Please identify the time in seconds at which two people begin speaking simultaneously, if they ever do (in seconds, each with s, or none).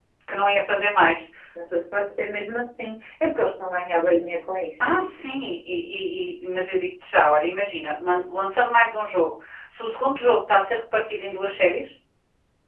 none